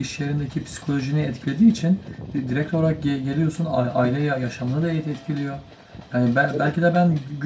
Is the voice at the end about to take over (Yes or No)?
No